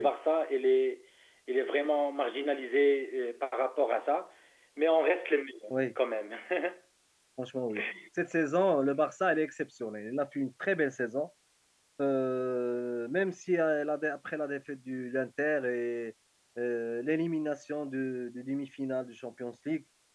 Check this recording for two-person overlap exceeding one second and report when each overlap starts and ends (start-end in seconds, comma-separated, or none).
none